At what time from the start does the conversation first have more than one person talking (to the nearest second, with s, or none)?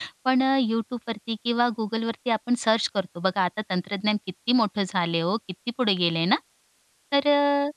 none